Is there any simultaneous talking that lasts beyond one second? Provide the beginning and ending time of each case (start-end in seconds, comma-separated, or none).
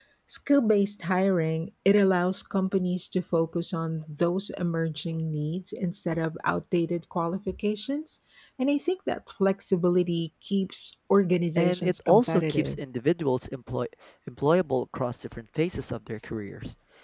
11.6-12.8